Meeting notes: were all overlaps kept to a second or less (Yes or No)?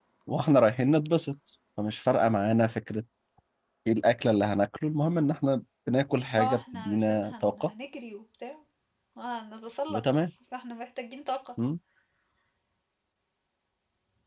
No